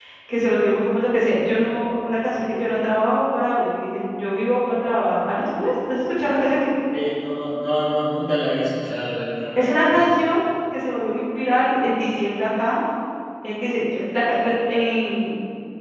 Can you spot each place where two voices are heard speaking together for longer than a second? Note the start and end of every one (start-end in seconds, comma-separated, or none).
none